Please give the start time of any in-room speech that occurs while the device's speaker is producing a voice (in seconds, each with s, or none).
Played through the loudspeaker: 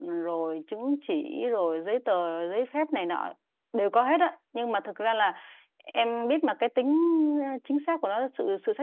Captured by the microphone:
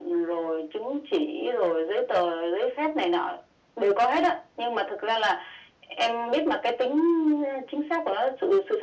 none